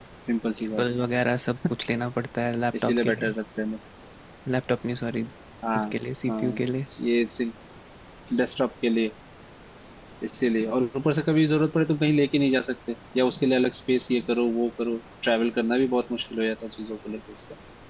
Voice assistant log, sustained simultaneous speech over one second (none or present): none